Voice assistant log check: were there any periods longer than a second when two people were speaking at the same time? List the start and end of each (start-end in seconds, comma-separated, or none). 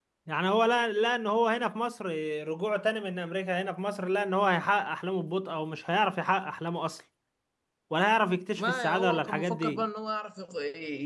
8.6-9.8